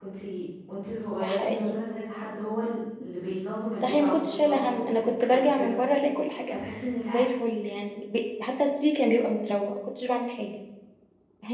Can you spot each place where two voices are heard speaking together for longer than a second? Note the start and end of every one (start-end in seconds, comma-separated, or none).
3.8-5.8